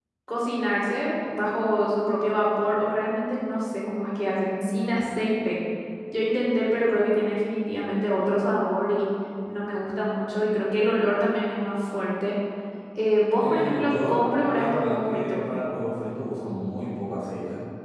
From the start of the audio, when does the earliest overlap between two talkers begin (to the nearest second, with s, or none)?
13 s